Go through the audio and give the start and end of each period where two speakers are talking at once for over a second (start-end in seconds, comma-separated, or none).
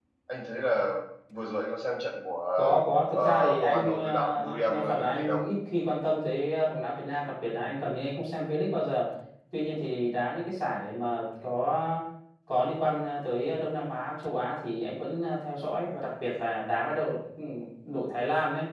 3.1-5.4